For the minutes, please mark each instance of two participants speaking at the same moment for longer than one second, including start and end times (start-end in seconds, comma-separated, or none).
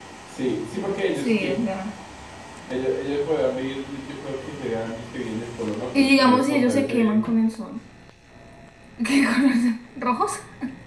5.9-7.1